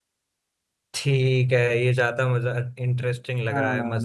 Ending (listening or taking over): taking over